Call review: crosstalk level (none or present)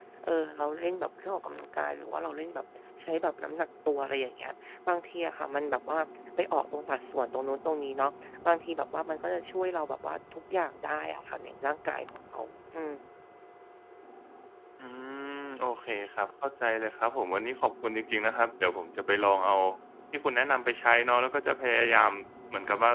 none